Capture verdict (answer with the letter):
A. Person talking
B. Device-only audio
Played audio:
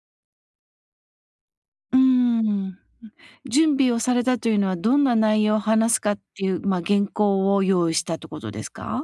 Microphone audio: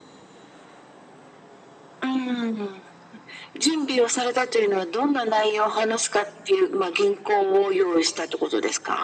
B